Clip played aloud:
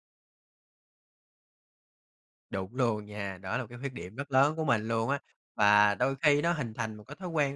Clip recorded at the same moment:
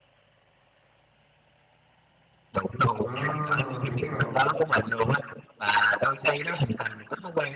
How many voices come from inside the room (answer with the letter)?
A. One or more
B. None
A